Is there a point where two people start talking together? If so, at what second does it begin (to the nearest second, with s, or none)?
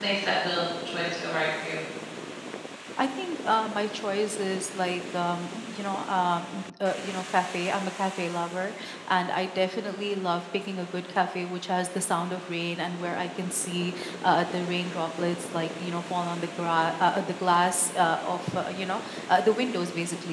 none